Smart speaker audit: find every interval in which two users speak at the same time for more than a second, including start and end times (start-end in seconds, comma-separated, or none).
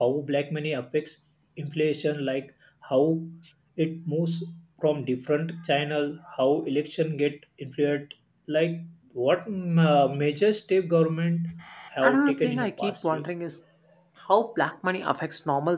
12.0-13.2